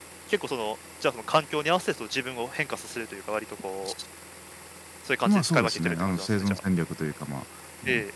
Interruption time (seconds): 5 s

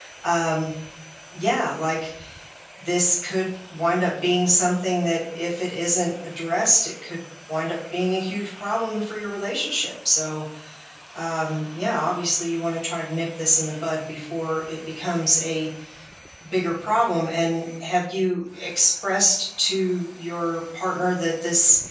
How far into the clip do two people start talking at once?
none

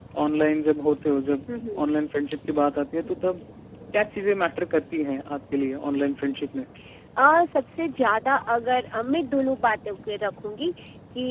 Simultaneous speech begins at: none

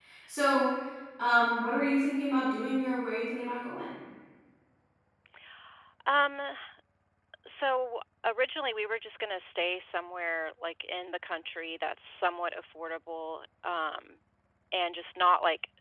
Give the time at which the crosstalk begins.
none

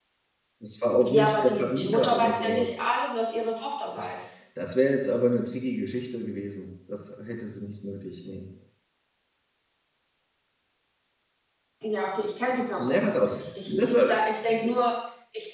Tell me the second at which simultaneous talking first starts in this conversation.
1 s

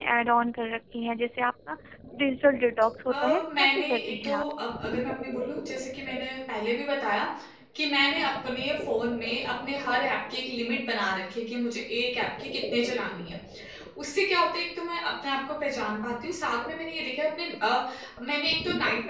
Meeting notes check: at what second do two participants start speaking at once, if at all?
3 s

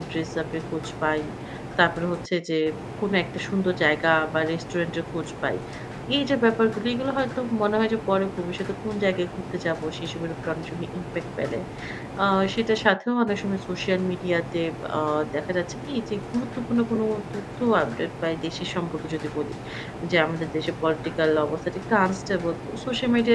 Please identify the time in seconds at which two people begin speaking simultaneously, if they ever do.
none

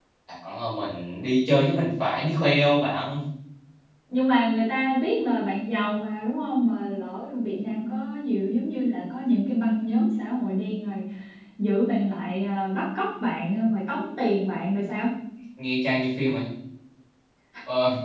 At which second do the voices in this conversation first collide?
none

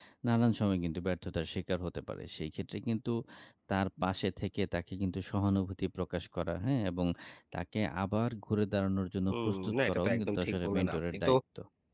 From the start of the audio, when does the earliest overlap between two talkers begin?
9 s

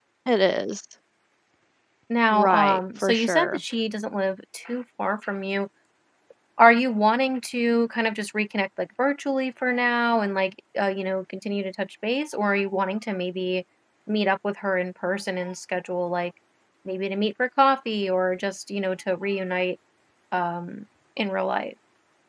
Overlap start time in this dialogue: 2 s

